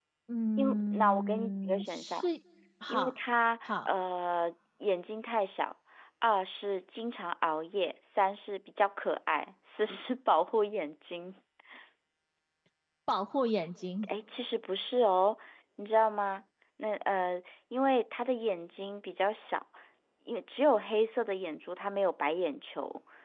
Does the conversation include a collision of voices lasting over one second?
Yes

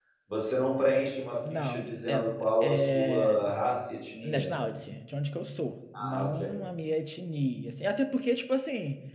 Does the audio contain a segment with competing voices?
Yes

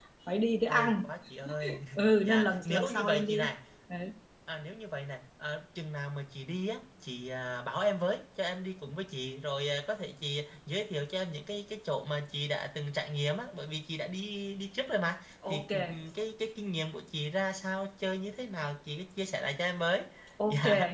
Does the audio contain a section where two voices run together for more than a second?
Yes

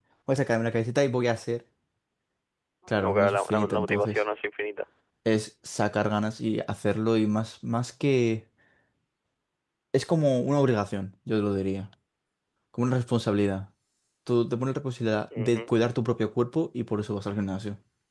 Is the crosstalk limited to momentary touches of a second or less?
No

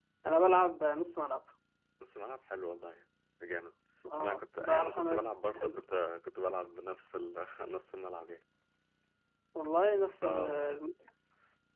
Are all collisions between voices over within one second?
No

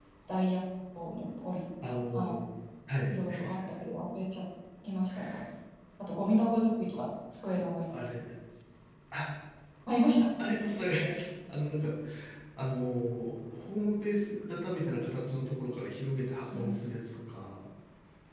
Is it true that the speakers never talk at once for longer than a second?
Yes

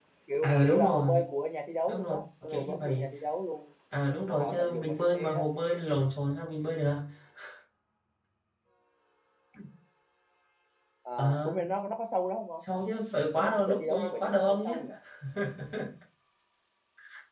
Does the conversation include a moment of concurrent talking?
Yes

